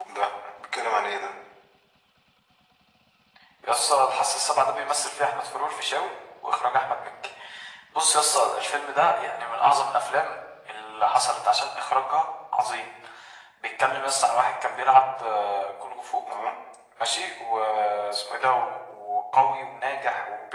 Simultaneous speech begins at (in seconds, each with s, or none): none